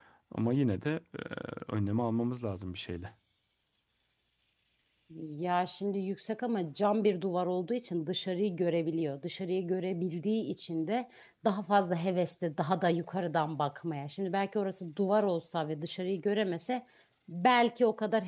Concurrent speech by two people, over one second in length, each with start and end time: none

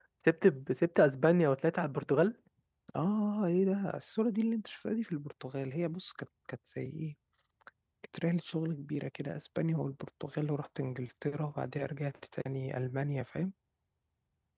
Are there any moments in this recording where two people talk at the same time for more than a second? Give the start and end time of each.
none

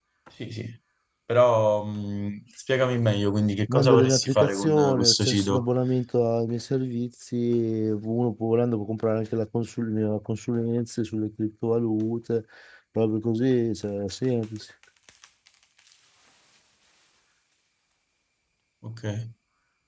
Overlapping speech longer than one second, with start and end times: 3.7-5.6

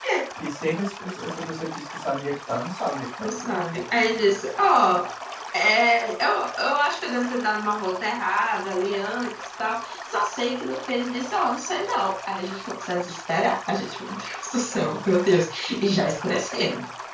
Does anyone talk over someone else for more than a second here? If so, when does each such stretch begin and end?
none

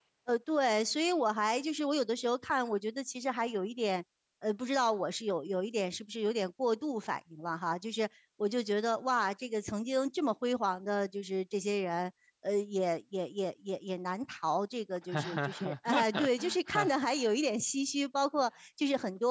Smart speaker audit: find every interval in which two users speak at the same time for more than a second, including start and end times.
15.1-17.0

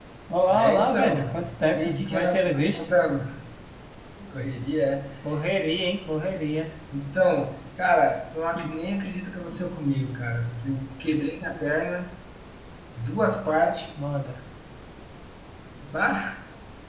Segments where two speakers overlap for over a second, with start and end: 0.5-2.9

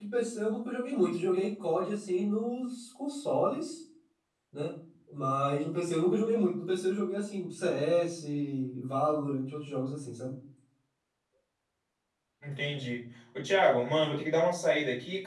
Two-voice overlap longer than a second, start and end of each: none

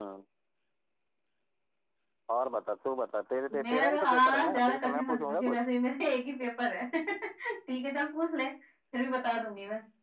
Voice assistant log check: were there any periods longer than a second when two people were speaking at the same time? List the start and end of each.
3.6-5.7

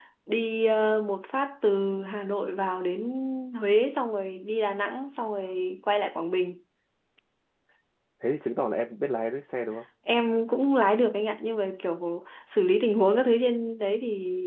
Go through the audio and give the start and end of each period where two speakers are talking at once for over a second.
none

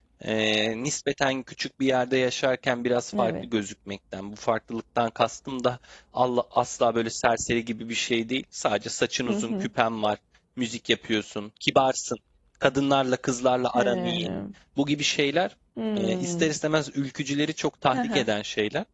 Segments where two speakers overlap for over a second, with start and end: none

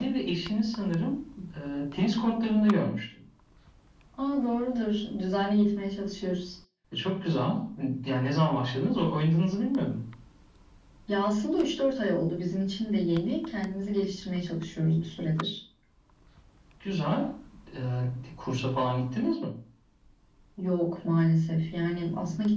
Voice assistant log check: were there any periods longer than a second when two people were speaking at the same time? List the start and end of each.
none

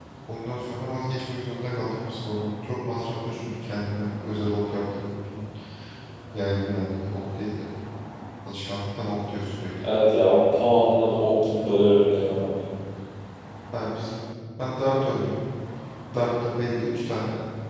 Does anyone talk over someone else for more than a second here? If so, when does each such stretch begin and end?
none

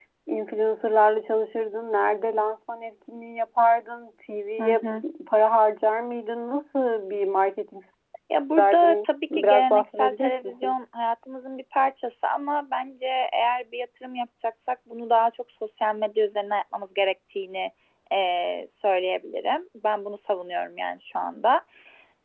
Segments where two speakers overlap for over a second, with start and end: 8.6-10.7

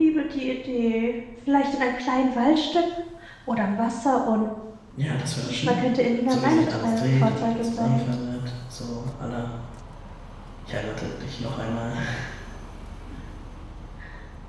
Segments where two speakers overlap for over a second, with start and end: 6.3-8.1

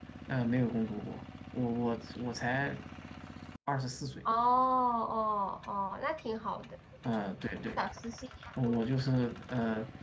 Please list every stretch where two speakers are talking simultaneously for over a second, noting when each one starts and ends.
none

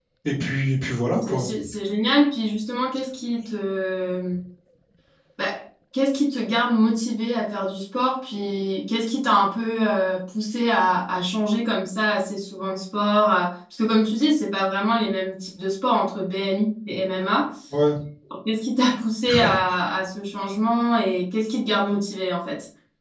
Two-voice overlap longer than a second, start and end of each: none

